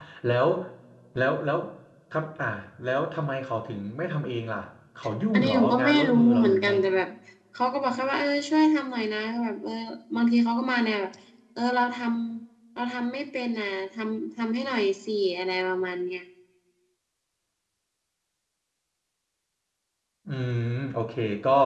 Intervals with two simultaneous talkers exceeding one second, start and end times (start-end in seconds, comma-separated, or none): 5.3-6.7